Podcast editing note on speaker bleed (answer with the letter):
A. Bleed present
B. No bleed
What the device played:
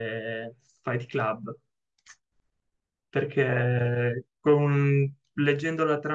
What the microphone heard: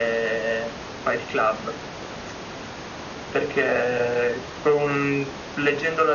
A